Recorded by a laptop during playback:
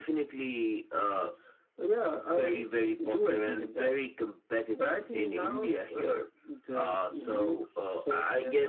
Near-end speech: none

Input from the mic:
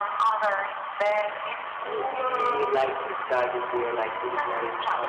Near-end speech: present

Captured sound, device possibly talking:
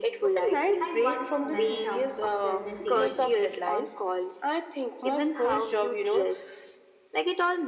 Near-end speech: present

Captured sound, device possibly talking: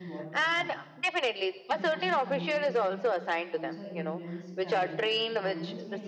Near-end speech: present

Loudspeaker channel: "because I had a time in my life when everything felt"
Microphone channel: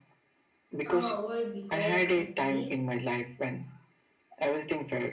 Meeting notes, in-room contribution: present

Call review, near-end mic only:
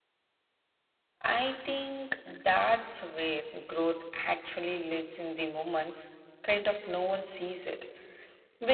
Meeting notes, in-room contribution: present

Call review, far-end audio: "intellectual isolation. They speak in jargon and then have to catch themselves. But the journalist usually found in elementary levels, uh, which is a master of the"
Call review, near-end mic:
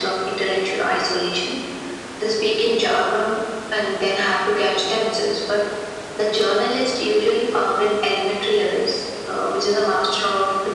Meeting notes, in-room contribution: none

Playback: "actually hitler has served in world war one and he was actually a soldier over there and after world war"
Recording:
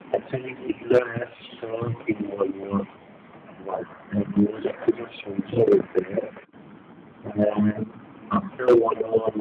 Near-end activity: none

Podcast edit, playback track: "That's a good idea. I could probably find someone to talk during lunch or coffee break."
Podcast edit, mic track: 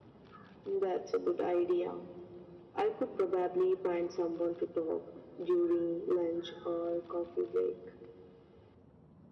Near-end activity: none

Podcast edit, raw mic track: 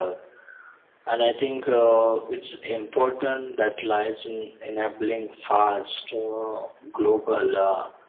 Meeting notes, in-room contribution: none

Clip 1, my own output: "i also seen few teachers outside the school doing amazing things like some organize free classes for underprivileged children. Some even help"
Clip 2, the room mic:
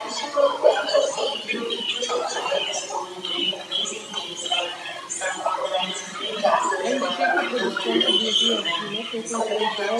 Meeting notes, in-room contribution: present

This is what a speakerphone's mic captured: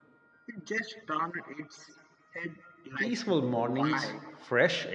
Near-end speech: present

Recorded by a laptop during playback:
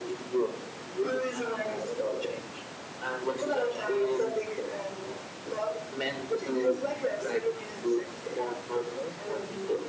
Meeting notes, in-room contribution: none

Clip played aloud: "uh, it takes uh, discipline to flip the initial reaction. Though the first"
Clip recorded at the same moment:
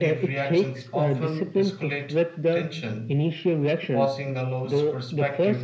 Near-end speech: present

